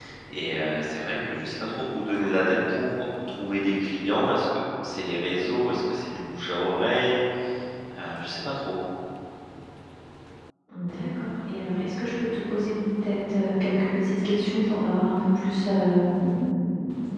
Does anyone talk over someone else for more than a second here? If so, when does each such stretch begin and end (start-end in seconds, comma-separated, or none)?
none